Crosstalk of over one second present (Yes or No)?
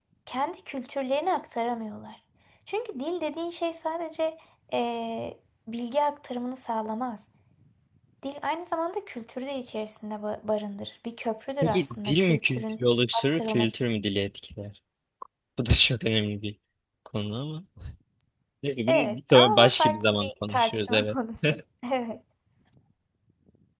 Yes